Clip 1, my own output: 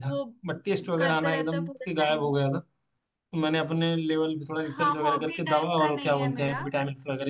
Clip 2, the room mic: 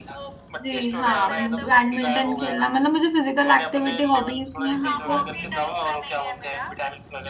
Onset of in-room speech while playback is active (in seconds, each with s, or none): 0.6 s